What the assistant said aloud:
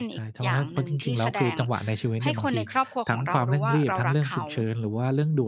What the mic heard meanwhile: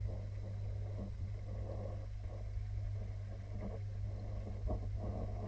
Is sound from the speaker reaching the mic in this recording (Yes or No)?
No